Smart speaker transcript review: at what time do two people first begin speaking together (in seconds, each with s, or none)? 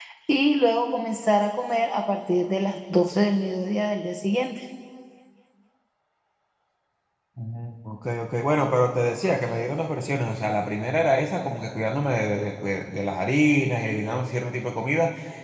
none